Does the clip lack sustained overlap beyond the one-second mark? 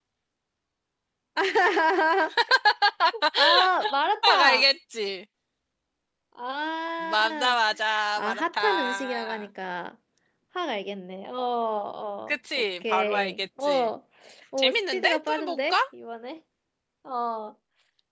No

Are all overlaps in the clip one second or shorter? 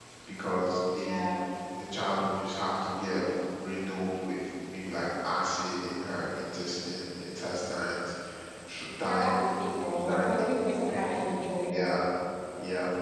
No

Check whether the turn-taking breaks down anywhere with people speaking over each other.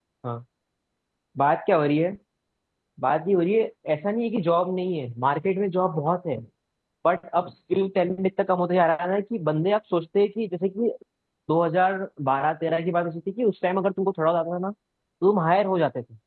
No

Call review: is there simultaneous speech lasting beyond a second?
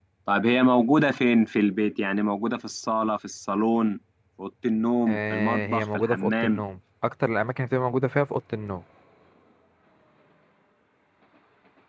Yes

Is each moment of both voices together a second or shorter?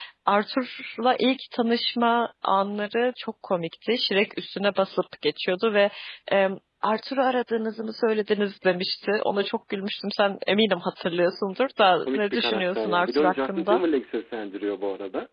No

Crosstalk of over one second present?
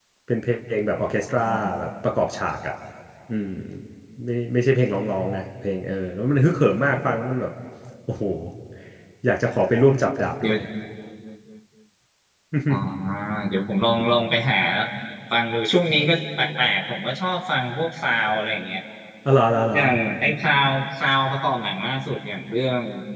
No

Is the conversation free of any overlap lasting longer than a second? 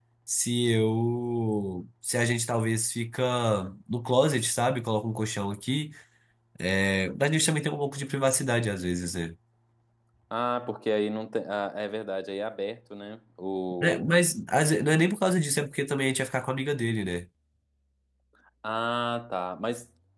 Yes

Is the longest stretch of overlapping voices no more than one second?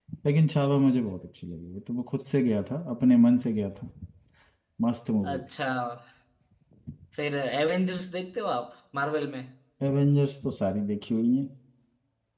Yes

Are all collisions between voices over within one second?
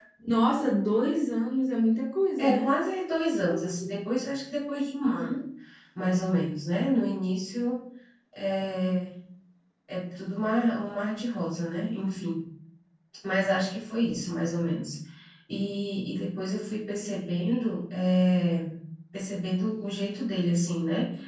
Yes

